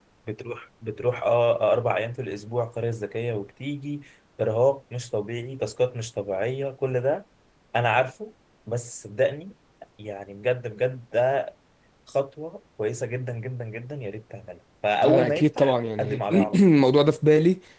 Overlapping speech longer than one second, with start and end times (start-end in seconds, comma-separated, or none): 15.1-16.6